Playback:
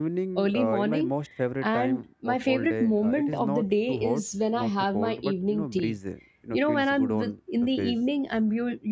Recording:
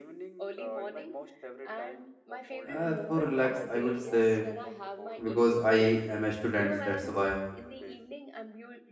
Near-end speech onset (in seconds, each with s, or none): 2.6 s